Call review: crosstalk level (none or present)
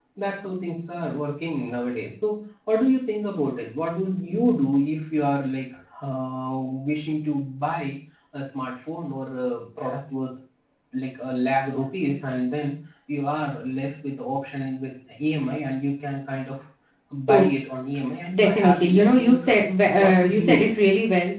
present